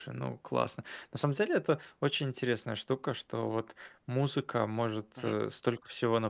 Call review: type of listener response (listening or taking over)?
listening